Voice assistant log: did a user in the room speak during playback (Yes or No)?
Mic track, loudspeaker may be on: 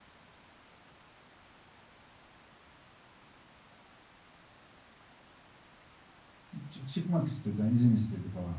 Yes